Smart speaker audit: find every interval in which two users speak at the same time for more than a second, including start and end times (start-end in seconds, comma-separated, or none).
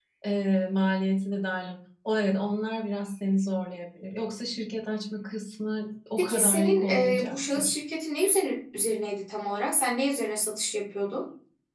6.2-7.8